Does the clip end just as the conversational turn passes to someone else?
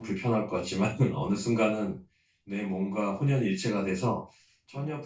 No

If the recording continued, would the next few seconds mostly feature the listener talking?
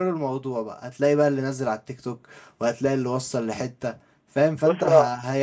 No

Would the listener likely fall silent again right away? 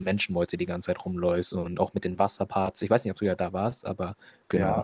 No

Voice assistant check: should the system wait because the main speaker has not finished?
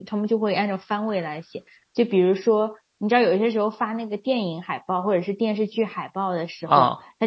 Yes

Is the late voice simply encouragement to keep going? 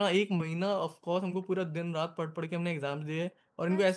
No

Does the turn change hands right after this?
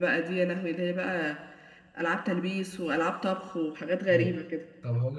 Yes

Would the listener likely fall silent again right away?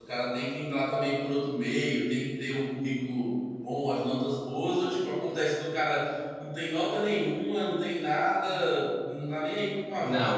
No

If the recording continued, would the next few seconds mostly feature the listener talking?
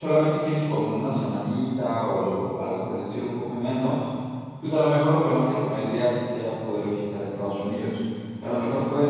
No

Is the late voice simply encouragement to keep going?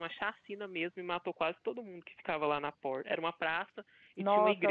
No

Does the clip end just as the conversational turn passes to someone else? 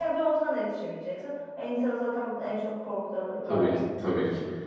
Yes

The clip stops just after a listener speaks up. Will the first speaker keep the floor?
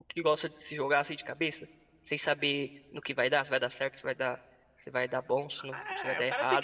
No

